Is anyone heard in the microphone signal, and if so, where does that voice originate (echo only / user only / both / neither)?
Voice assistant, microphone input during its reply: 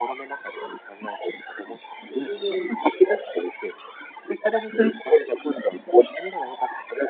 both